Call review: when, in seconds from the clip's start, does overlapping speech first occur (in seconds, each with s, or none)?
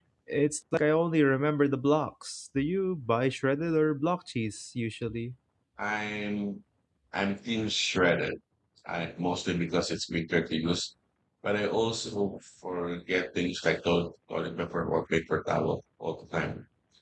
none